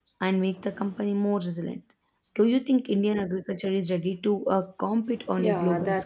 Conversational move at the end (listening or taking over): taking over